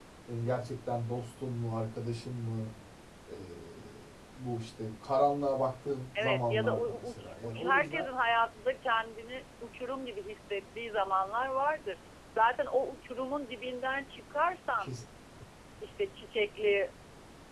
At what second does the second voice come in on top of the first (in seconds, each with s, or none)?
6.2 s